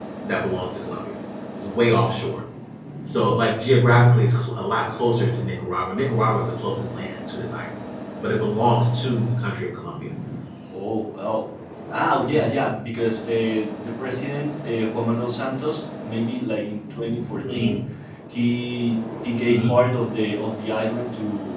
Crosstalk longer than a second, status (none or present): none